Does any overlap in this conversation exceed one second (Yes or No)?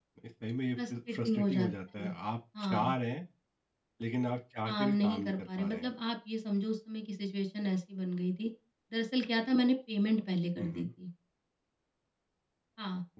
Yes